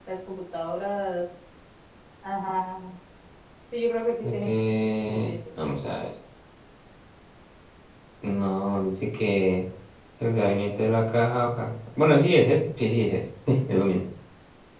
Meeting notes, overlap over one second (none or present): none